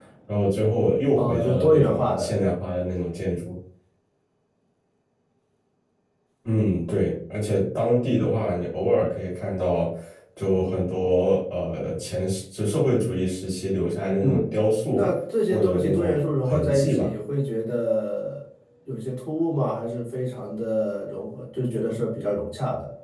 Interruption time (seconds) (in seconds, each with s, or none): 1.1 s